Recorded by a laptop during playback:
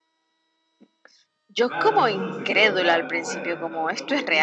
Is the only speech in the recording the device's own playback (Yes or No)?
No